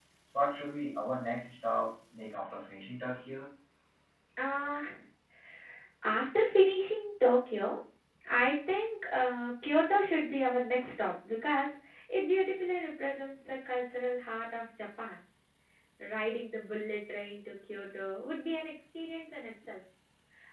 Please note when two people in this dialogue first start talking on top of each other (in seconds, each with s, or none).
none